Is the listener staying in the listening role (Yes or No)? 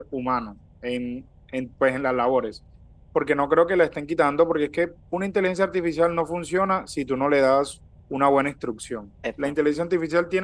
Yes